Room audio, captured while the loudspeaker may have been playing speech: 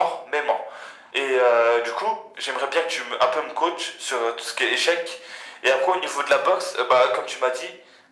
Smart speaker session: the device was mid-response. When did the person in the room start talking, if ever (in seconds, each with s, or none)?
none